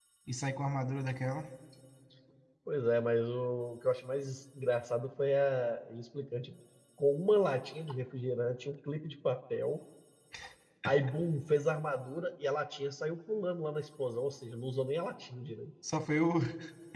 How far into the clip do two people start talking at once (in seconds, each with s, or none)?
none